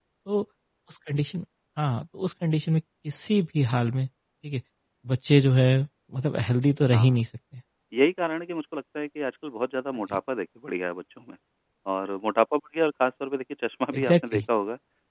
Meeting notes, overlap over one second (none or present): none